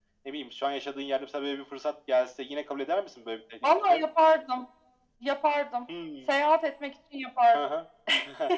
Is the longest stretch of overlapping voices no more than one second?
Yes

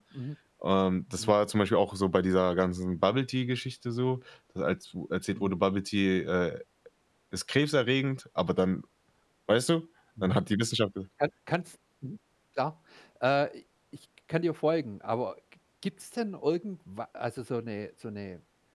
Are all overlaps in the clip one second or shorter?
Yes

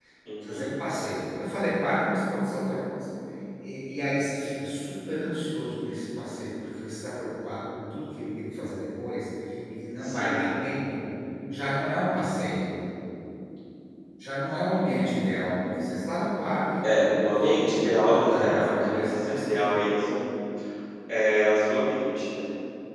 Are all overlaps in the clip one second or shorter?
No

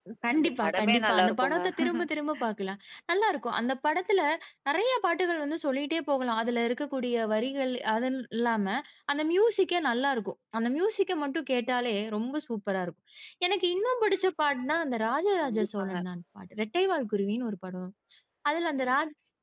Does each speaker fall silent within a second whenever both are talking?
No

